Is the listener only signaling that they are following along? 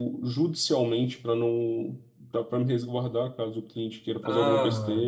No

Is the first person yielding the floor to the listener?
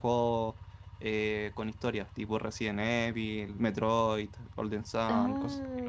Yes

